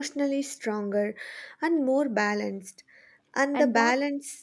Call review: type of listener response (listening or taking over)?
listening